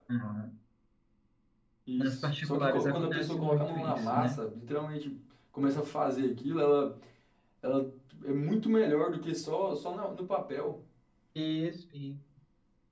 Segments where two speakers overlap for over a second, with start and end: 2.0-4.4

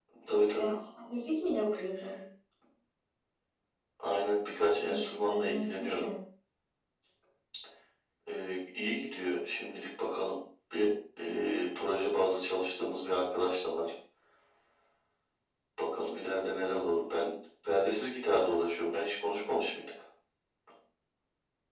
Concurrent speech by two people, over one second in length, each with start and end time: 4.8-6.1

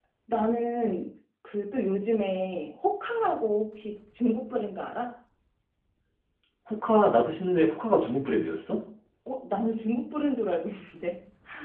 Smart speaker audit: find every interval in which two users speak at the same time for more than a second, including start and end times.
none

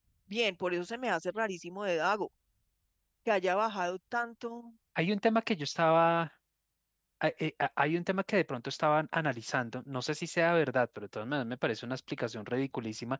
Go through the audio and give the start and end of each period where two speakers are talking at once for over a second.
none

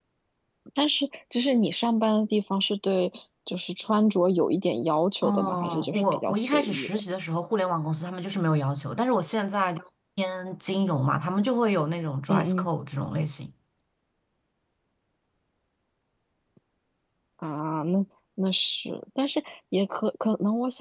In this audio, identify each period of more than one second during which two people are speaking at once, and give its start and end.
5.2-7.0

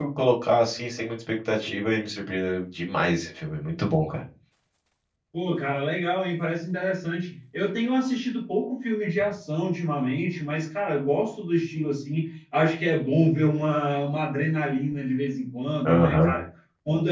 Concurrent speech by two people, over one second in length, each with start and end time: none

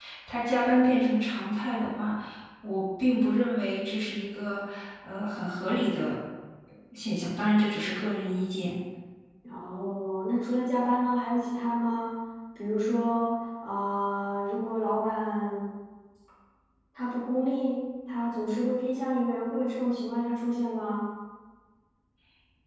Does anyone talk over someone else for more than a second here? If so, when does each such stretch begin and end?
none

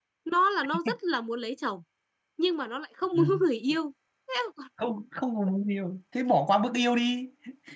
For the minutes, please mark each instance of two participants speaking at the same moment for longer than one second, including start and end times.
none

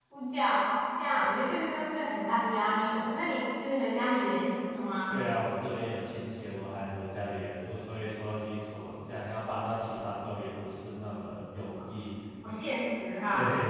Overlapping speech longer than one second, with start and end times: none

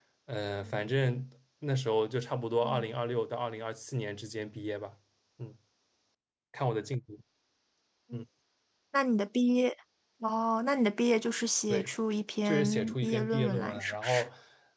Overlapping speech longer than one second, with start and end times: 12.4-14.3

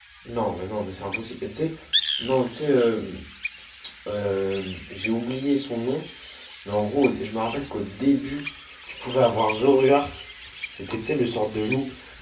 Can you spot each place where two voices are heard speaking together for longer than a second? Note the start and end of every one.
none

